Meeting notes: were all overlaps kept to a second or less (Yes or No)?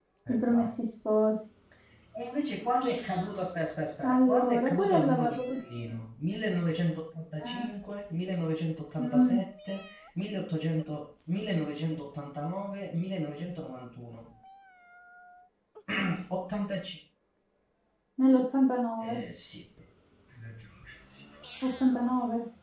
No